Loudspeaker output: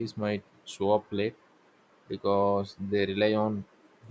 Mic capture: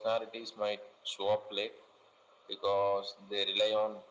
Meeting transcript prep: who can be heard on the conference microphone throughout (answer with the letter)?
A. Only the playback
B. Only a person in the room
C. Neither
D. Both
A